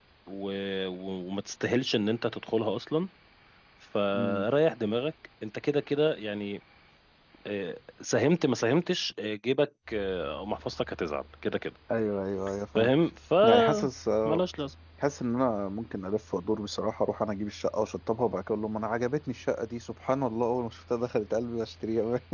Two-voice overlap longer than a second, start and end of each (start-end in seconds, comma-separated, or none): none